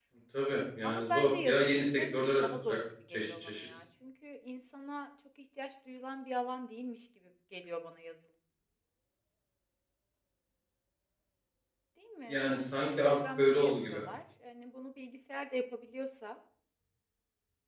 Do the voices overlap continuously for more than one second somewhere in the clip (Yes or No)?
Yes